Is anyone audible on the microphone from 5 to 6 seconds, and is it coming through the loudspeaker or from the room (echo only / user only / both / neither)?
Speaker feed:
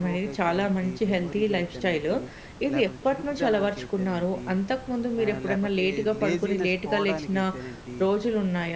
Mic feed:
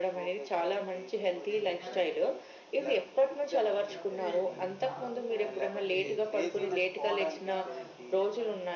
both